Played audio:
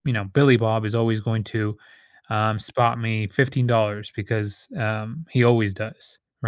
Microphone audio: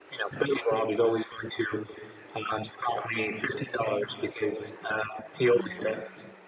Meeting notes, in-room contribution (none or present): present